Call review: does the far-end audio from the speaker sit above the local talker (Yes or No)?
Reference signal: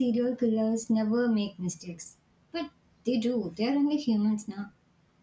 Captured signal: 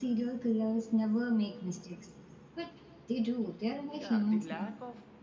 Yes